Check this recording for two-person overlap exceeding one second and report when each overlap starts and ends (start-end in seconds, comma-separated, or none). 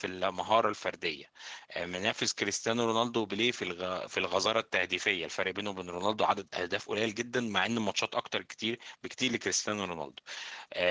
none